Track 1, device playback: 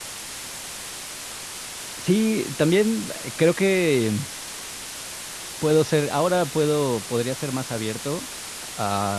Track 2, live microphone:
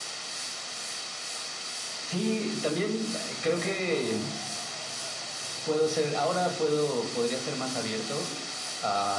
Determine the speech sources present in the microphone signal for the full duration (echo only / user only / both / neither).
echo only